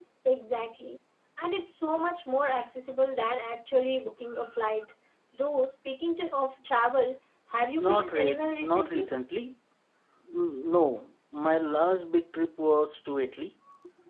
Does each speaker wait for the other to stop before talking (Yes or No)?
No